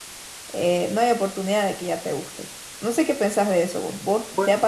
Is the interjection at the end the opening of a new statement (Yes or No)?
No